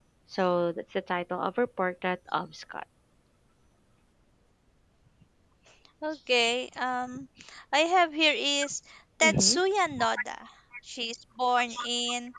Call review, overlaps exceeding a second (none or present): none